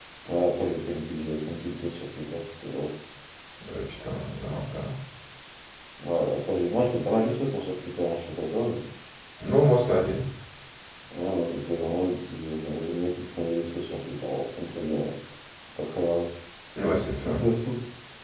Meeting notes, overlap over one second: none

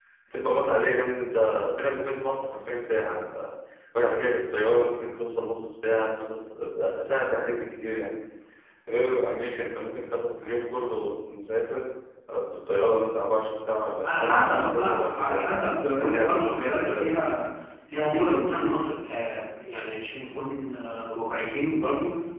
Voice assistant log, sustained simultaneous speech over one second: present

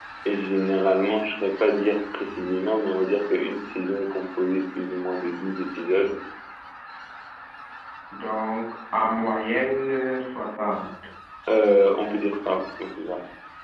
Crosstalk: none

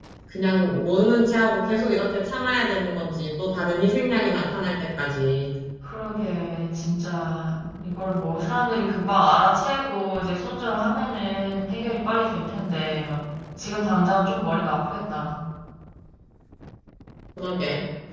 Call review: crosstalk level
none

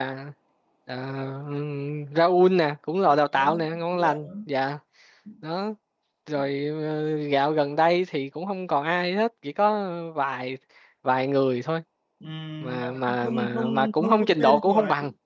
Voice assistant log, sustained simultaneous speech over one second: present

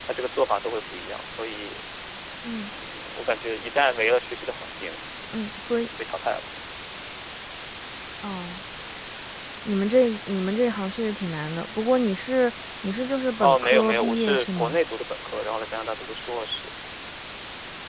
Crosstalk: present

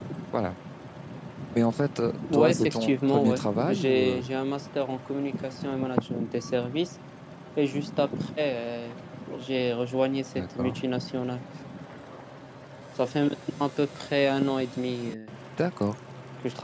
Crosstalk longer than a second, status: present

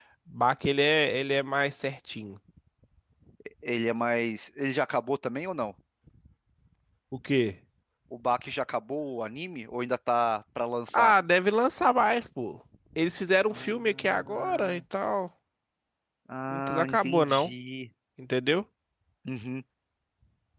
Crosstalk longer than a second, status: present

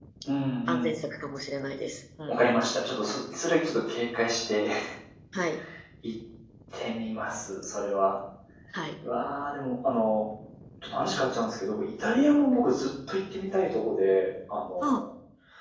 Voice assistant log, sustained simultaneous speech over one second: none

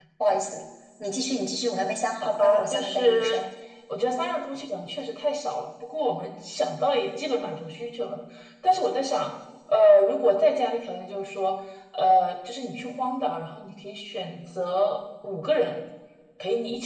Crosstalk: present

